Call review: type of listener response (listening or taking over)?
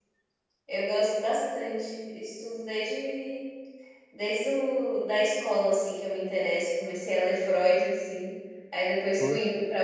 listening